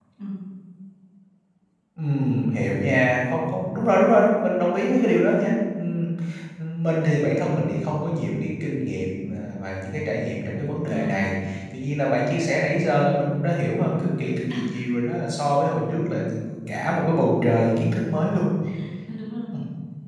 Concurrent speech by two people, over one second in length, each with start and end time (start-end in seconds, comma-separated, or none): none